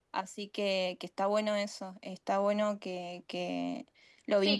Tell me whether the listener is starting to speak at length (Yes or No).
Yes